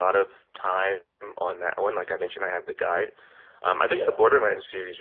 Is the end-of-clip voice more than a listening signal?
No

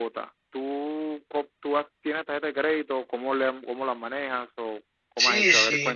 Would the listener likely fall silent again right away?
No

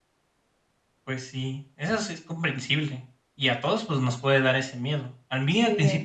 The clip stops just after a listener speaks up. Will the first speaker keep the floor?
Yes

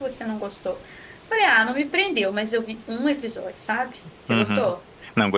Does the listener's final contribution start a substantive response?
Yes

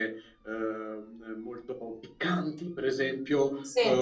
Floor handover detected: No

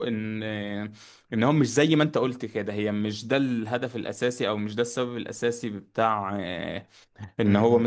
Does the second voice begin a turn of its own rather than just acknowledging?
No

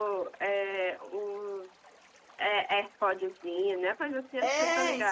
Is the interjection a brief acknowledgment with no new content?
No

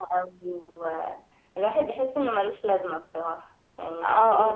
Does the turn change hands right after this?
Yes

